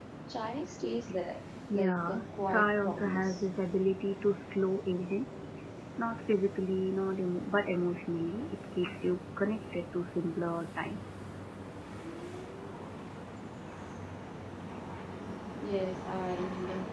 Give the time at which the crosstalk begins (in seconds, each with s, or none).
1.7 s